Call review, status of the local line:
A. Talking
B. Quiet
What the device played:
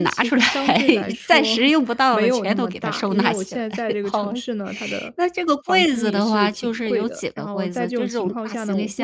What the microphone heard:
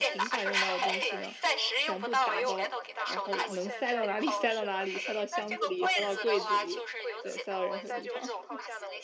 A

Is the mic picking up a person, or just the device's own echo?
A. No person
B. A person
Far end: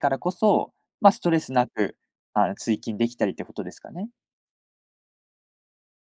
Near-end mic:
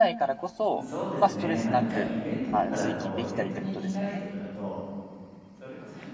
B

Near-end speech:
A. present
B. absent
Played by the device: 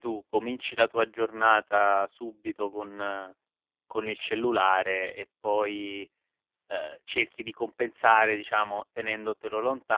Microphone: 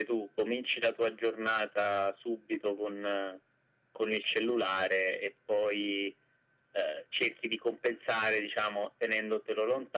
B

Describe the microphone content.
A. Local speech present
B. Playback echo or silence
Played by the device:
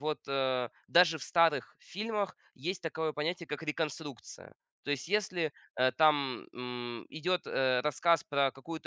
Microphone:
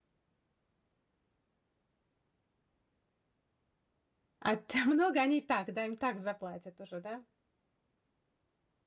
A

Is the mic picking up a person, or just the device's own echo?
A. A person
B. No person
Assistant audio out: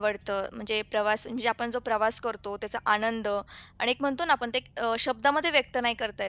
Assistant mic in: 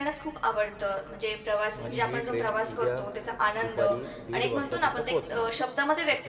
A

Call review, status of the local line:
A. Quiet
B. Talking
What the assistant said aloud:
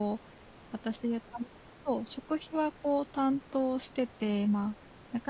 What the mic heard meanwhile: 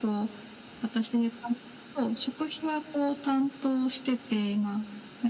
A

